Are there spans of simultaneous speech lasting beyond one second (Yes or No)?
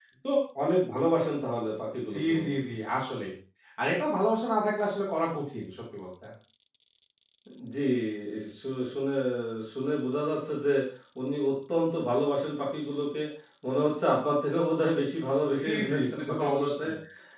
Yes